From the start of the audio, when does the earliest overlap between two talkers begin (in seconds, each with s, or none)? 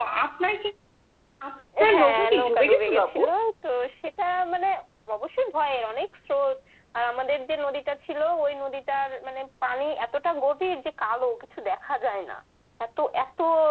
1.9 s